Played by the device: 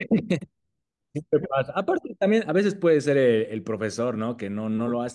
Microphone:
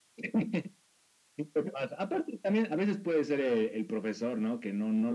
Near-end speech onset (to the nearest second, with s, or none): none